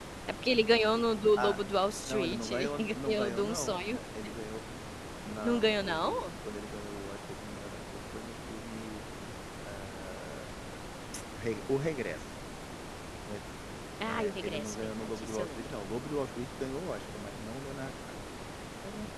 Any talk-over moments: Yes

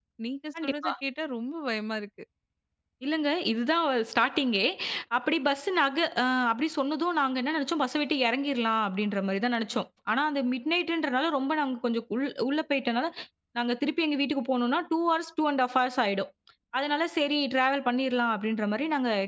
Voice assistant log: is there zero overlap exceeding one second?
Yes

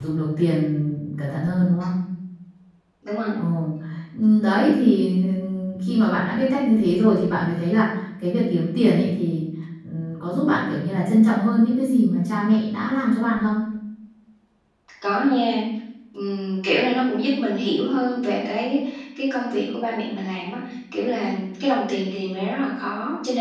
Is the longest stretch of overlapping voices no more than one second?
Yes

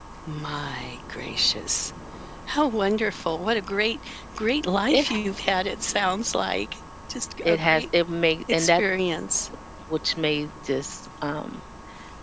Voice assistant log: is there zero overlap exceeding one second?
Yes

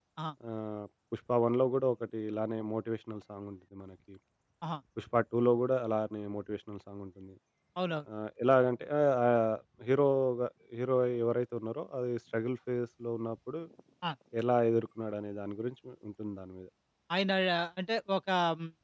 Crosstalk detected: No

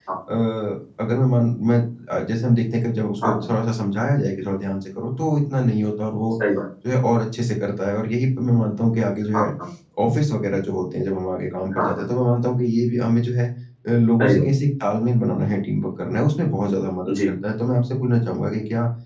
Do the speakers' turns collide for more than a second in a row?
No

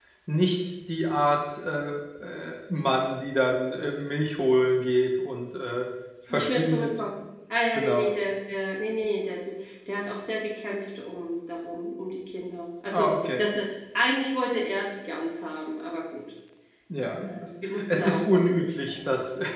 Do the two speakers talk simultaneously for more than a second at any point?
Yes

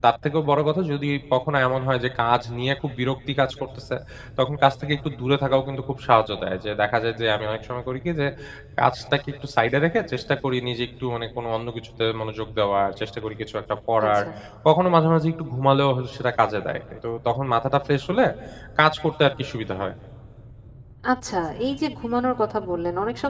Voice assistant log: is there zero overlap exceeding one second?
Yes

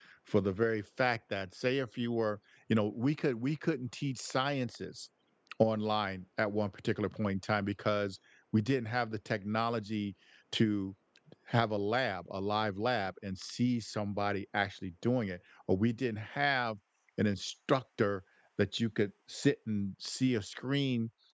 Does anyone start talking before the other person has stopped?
No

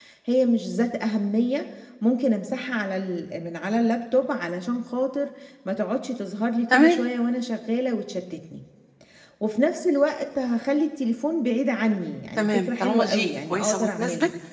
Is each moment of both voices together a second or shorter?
No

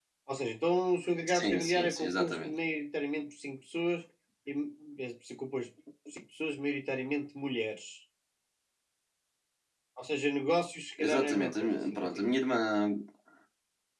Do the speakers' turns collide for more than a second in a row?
Yes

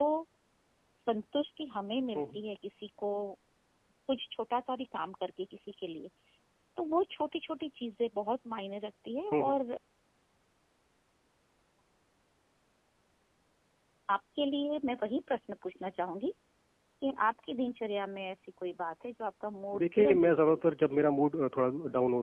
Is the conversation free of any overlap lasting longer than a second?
No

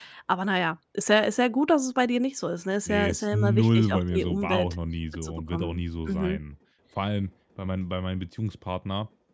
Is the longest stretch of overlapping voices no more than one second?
No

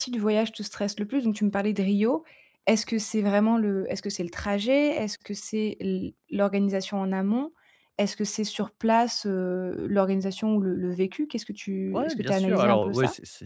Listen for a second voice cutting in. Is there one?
Yes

